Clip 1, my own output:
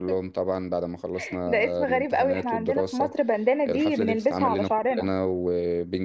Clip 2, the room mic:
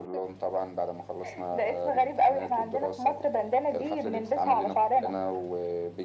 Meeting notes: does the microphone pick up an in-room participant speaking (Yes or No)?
No